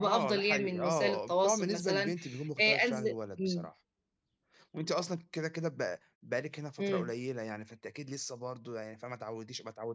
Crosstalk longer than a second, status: present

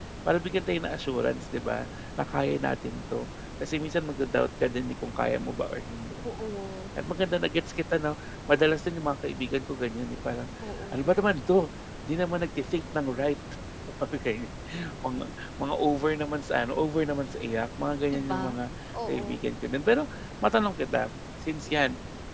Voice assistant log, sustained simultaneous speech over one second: none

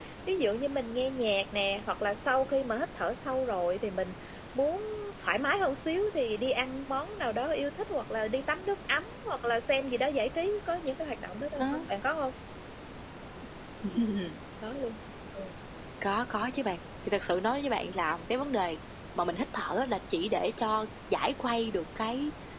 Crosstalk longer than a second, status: none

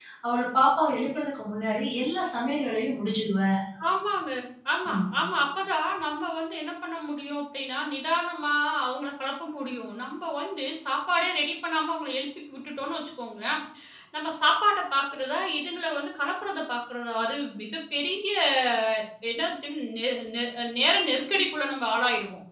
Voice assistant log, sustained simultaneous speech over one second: none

